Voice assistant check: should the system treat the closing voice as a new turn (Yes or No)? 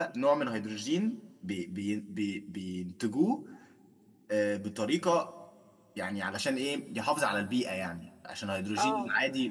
No